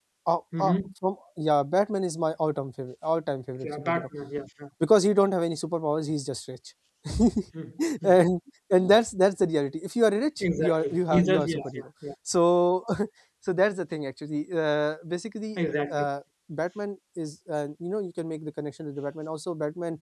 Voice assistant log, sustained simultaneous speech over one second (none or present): present